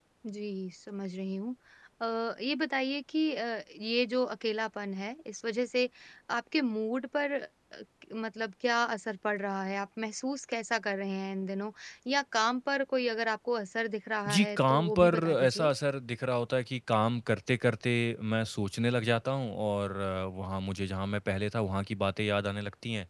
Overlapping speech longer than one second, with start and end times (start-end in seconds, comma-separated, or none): 14.3-15.7